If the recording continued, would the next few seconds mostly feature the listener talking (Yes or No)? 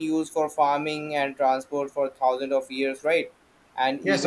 Yes